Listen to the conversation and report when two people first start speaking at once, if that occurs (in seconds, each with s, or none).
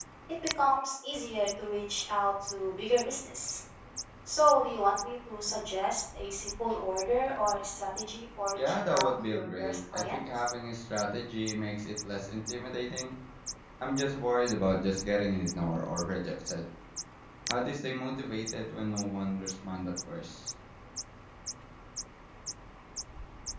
8.6 s